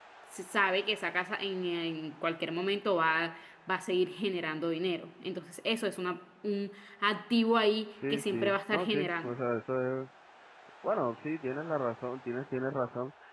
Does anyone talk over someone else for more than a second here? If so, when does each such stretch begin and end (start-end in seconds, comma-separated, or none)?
8.1-9.4